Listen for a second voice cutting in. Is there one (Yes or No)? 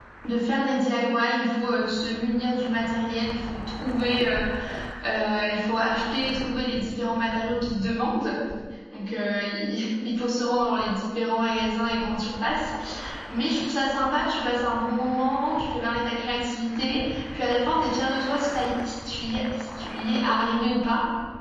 No